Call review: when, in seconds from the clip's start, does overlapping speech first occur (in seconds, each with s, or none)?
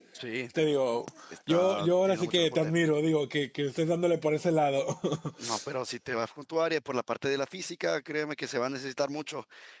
1.5 s